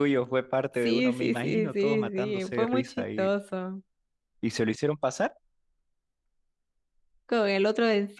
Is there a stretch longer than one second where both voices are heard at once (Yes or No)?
Yes